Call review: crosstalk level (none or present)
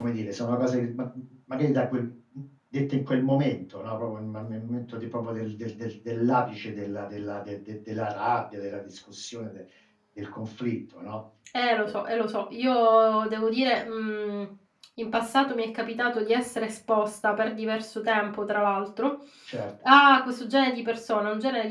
none